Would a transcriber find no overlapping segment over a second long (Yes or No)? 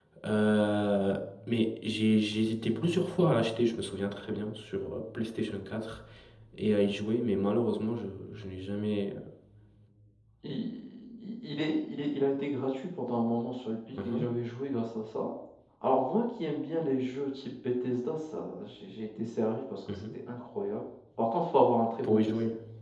Yes